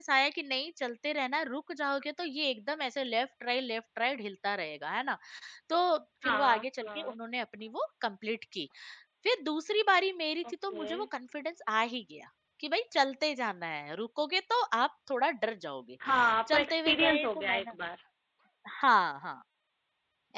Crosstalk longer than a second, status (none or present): present